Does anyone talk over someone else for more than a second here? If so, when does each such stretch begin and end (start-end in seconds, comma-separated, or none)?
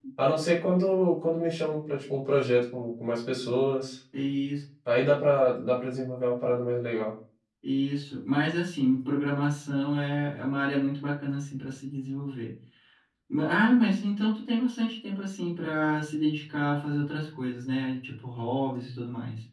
none